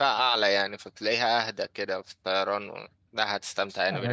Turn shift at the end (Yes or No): Yes